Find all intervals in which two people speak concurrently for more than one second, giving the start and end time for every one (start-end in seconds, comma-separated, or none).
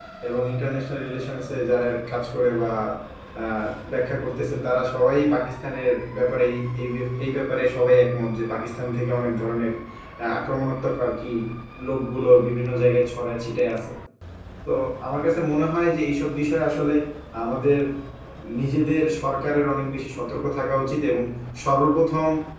none